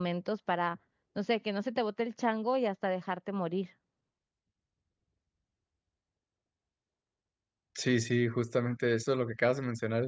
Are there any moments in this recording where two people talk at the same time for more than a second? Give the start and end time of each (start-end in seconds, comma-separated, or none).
none